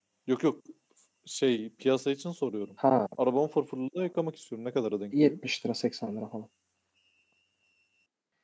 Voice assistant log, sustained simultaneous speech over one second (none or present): none